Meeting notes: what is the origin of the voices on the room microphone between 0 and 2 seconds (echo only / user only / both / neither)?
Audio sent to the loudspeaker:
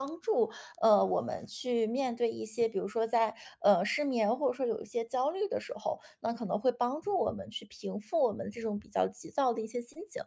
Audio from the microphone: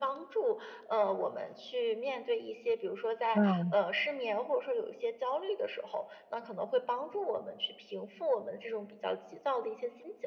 echo only